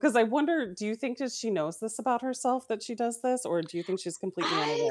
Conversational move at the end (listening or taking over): taking over